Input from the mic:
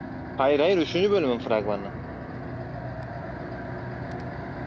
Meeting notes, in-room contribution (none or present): present